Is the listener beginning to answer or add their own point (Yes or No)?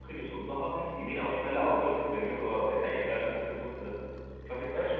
Yes